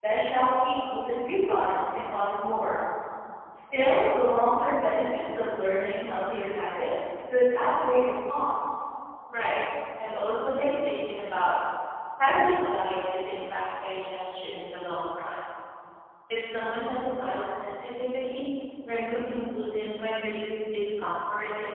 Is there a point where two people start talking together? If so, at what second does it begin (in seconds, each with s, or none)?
none